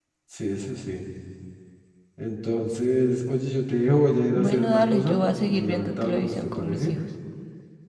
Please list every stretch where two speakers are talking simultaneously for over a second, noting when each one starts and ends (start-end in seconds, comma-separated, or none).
4.3-6.9